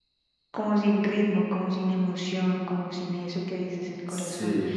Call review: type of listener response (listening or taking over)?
listening